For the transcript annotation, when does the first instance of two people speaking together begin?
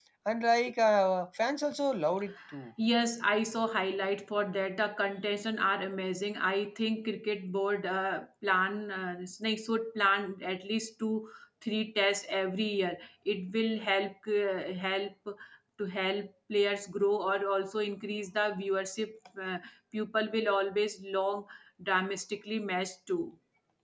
none

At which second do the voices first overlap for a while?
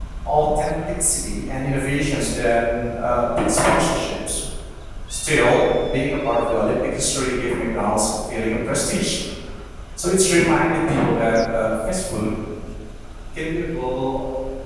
none

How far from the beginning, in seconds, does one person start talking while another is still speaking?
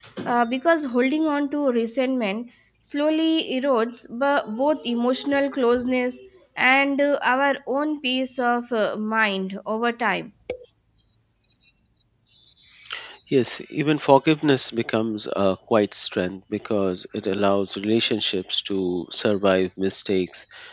none

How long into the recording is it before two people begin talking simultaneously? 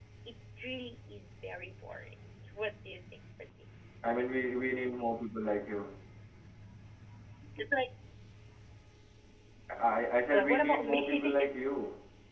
10.3 s

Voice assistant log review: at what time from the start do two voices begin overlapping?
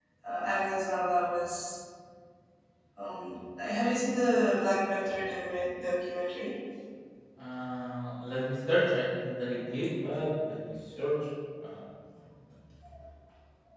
none

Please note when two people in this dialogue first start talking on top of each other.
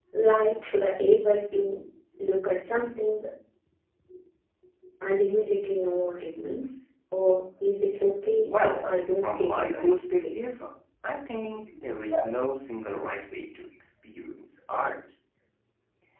8.5 s

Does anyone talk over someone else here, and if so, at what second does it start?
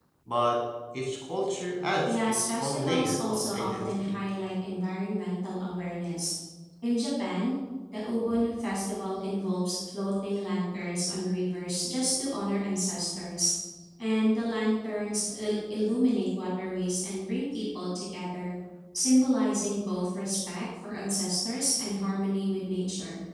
2.0 s

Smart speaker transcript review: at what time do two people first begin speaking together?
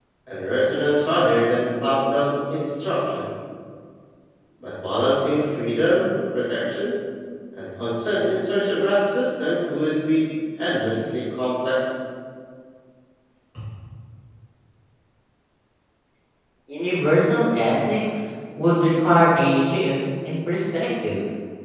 none

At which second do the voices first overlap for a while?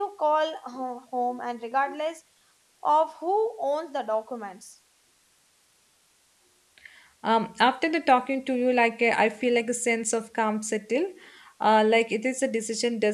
none

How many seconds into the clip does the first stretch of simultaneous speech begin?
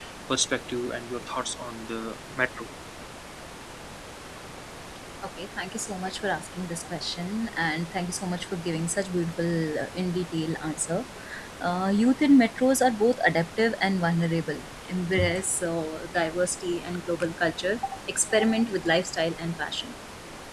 none

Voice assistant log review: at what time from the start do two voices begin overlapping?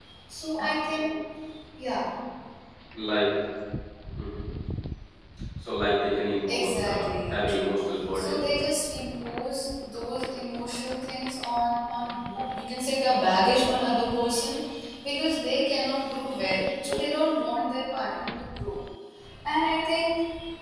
6.5 s

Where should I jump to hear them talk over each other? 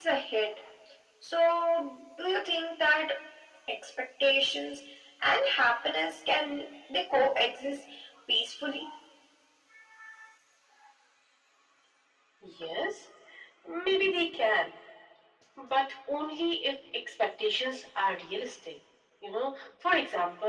none

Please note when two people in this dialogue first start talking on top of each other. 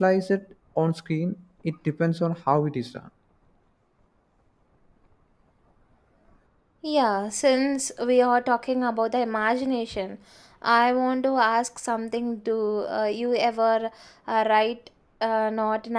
none

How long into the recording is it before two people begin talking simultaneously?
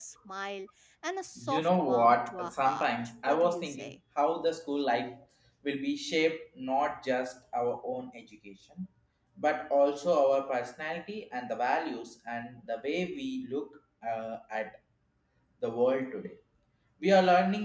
1.4 s

